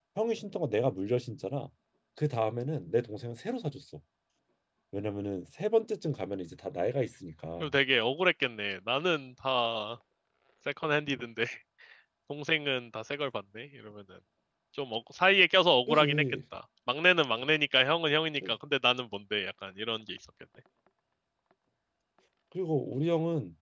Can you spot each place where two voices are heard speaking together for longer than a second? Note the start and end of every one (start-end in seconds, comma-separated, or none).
none